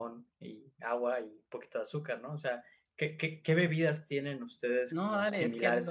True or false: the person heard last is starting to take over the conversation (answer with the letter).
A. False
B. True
B